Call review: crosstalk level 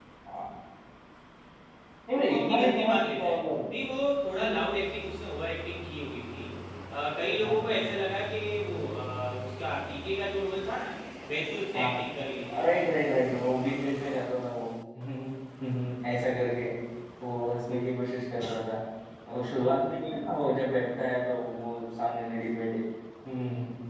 present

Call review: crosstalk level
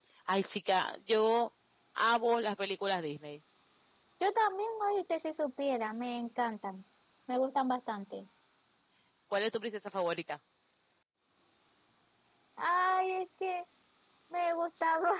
none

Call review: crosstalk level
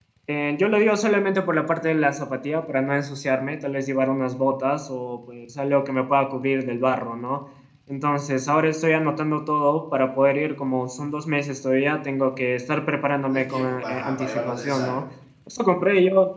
present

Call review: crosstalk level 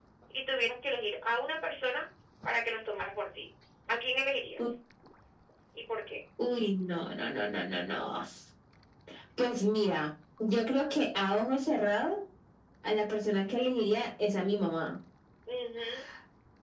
none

